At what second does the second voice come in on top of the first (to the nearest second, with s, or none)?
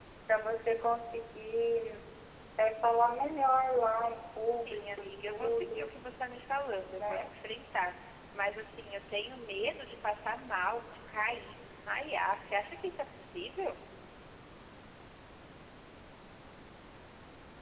5 s